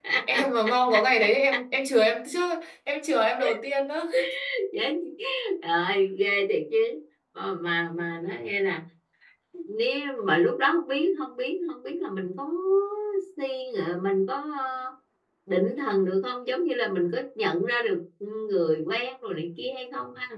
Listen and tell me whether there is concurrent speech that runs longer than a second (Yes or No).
No